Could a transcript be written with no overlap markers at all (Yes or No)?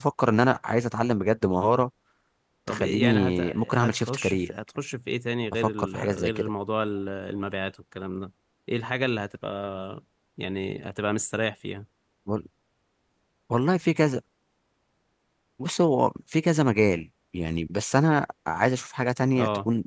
No